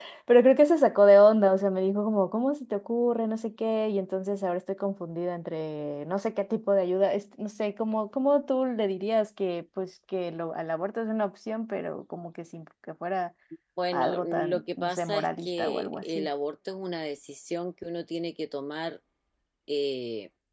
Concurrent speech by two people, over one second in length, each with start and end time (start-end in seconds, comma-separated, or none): 13.9-16.3